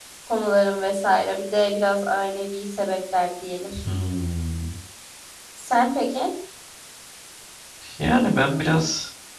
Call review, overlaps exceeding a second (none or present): none